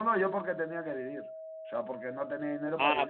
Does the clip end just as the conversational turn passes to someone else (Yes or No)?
Yes